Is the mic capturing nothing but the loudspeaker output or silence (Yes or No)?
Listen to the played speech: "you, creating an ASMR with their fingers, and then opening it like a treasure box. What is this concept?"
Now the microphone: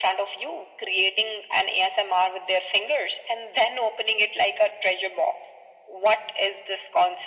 Yes